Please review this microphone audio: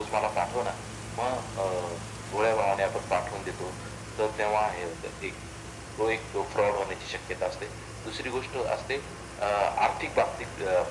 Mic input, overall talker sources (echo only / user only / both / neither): echo only